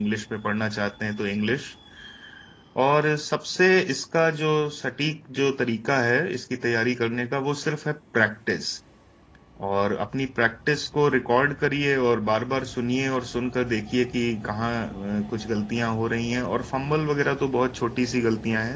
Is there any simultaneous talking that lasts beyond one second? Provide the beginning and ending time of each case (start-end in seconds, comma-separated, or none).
none